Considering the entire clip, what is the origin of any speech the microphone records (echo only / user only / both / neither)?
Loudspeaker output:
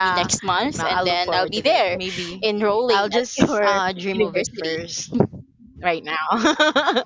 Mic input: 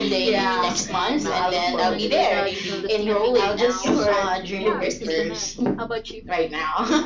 both